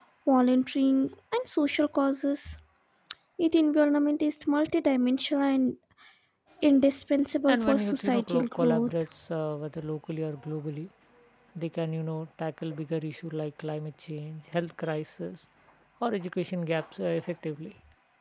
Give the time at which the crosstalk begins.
7.5 s

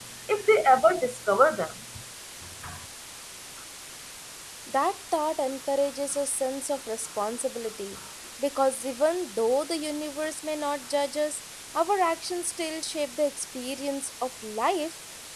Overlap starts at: none

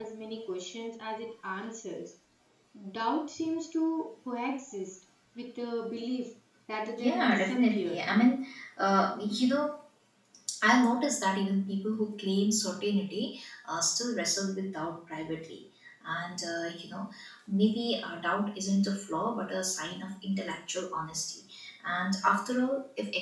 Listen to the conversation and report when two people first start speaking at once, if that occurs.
7.0 s

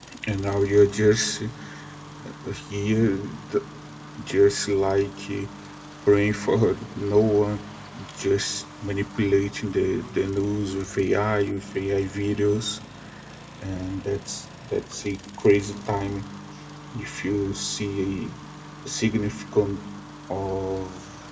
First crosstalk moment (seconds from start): none

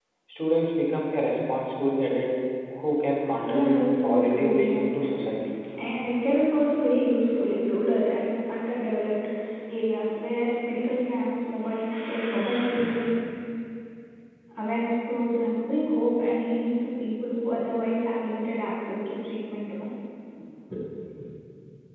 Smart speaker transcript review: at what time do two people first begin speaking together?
3.4 s

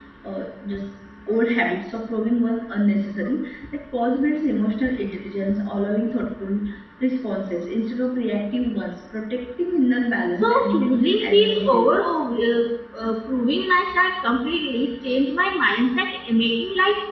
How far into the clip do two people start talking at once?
10.4 s

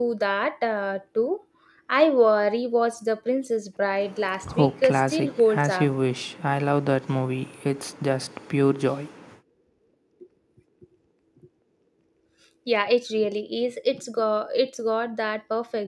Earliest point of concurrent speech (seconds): 4.4 s

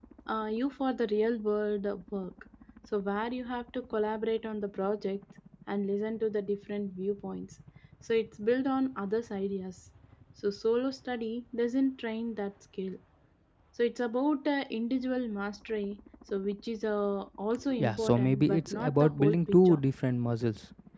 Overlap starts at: 17.7 s

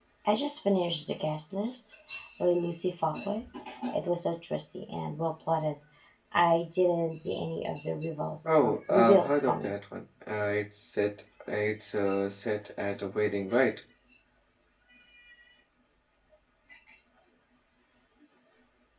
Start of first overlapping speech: 8.4 s

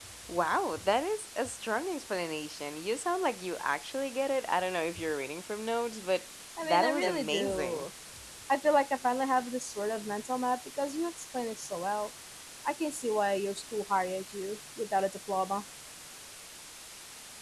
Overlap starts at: 6.6 s

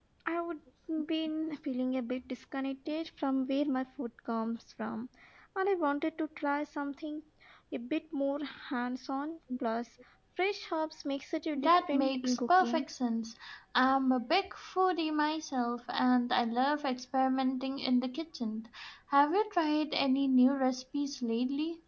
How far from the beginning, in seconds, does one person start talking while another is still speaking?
11.6 s

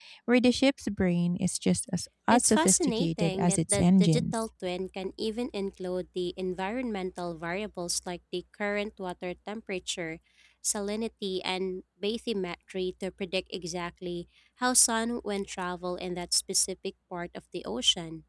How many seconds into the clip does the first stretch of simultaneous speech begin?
2.3 s

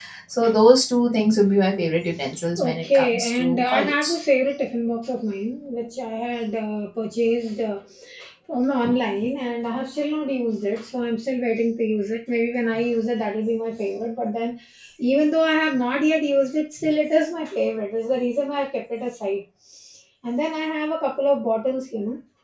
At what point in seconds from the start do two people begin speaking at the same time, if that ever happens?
2.6 s

